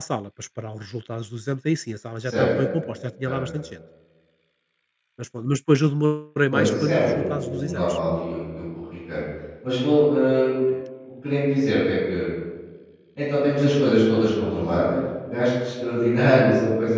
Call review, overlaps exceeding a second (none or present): present